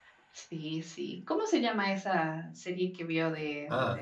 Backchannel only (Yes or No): No